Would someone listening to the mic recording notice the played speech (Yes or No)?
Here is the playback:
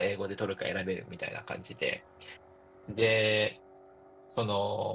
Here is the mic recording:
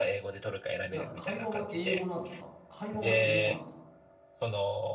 Yes